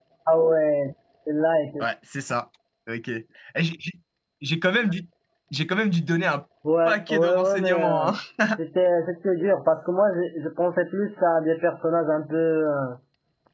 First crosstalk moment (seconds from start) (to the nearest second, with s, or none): 7 s